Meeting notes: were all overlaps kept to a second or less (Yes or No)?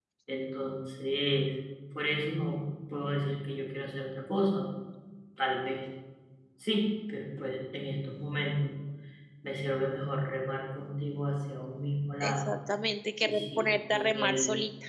No